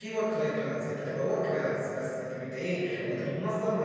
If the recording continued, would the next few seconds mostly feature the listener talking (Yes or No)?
No